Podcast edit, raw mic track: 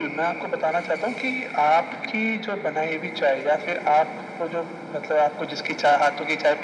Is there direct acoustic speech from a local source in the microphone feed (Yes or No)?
No